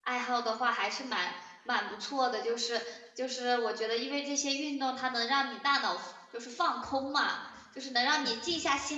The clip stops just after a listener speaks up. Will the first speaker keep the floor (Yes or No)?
Yes